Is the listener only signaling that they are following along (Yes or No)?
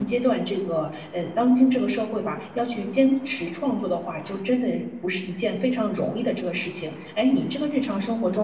Yes